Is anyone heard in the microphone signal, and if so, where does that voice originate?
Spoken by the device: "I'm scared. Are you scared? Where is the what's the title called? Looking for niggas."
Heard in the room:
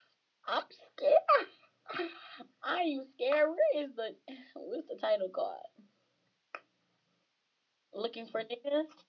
echo only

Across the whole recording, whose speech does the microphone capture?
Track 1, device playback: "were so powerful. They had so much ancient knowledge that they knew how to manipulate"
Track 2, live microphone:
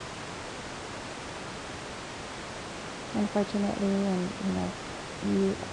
user only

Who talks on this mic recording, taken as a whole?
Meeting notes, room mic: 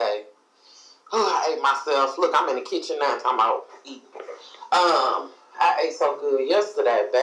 echo only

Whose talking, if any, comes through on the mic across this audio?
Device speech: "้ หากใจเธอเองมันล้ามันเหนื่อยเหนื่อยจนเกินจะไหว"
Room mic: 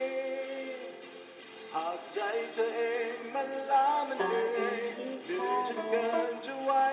both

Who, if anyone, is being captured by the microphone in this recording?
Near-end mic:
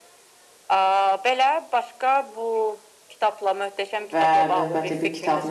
both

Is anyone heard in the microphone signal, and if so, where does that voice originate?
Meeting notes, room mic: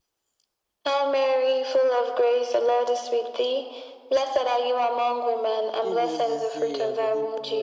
both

